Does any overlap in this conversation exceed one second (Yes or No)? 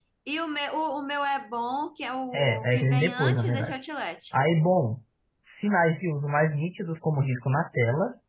Yes